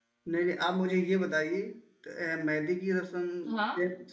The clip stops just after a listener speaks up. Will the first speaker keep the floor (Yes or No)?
Yes